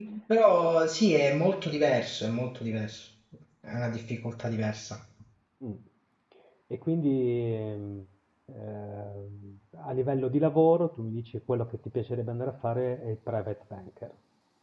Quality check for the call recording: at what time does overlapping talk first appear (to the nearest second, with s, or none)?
none